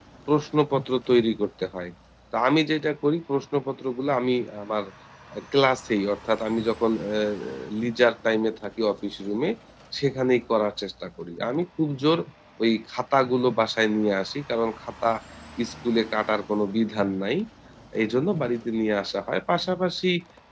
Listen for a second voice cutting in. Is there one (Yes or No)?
No